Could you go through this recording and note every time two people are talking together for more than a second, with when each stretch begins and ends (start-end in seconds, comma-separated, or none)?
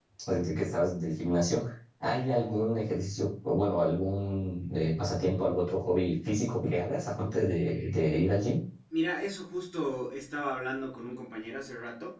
none